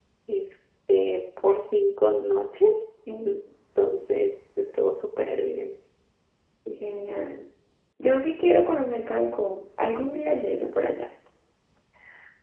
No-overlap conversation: Yes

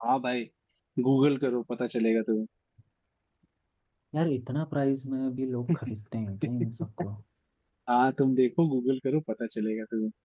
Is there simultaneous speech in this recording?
No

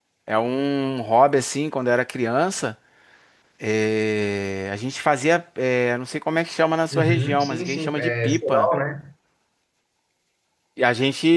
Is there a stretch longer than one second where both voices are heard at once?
Yes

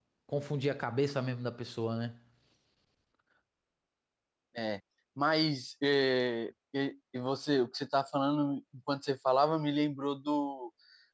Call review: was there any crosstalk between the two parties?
No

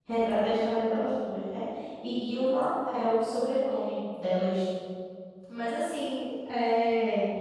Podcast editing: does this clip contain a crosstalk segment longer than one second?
No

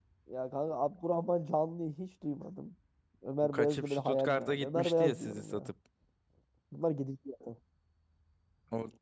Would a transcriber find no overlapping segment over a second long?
No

